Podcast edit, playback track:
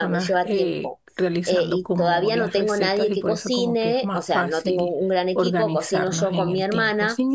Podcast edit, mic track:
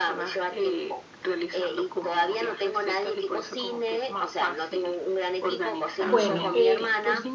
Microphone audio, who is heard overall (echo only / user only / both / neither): both